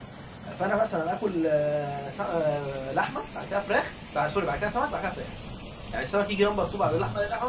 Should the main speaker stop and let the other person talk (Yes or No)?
No